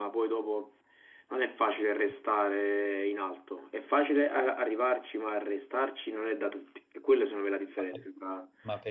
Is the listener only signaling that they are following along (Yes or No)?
No